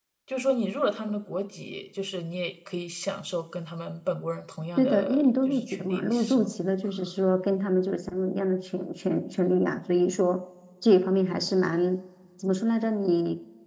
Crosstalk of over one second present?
Yes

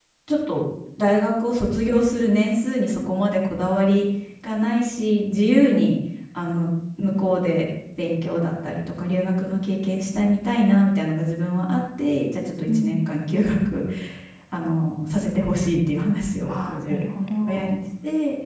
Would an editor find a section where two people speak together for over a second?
No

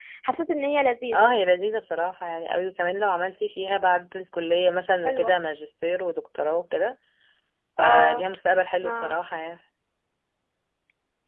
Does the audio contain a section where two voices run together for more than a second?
No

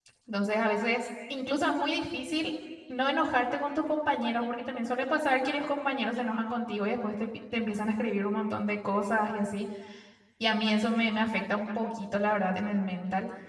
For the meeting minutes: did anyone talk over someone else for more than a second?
No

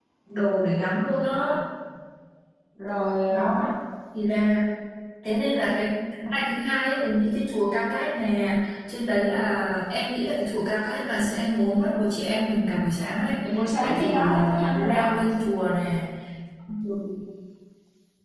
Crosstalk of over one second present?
Yes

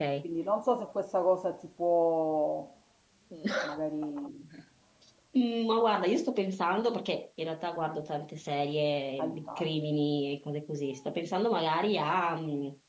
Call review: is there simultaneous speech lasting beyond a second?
No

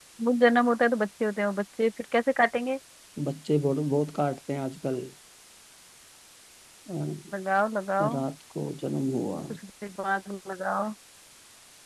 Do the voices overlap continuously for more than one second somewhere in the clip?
No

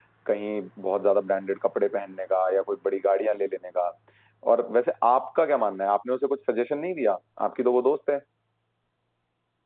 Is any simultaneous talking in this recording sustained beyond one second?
No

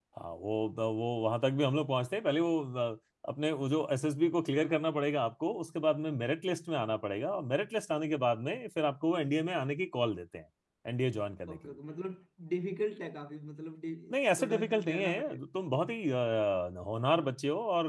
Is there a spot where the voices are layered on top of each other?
Yes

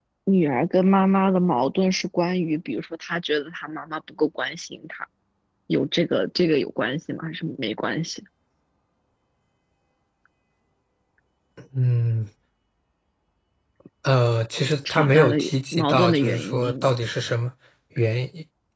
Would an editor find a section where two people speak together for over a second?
Yes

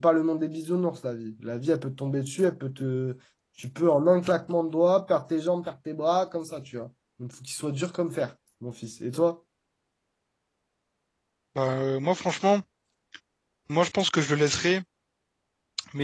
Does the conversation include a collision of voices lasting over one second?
No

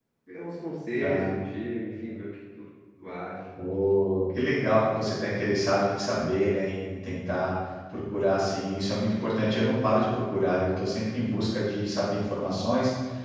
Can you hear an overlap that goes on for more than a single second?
No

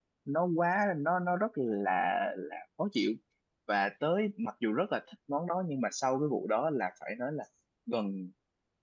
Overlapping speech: No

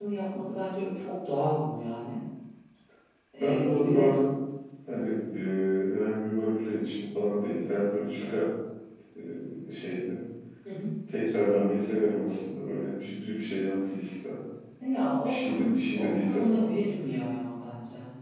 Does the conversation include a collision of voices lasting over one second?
Yes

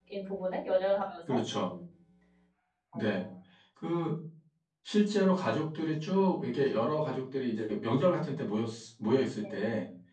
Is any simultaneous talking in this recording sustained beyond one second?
No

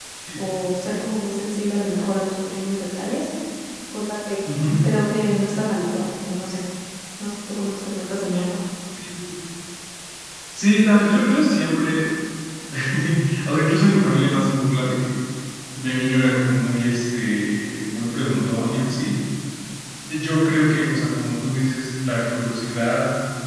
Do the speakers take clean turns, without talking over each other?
Yes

